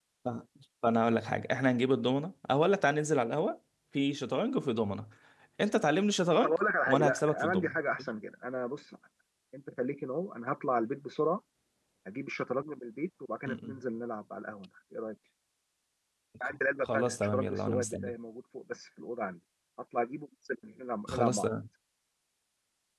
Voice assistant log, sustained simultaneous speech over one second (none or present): present